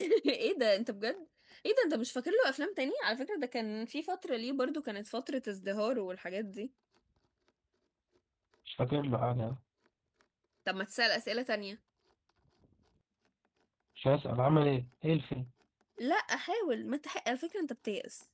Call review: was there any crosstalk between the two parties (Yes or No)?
No